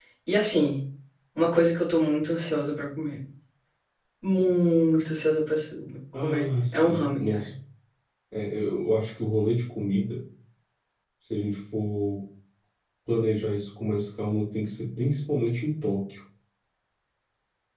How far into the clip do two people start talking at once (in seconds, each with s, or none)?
6.1 s